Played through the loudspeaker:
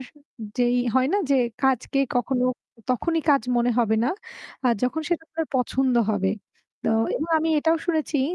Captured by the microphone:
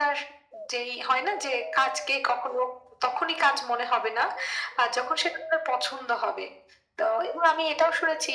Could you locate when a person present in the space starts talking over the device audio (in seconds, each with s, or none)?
none